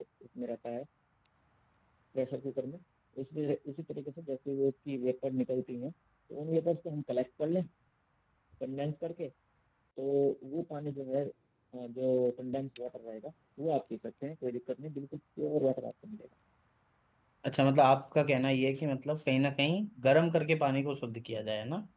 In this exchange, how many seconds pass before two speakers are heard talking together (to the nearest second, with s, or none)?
none